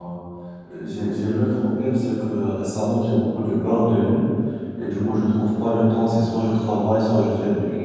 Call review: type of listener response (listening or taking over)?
listening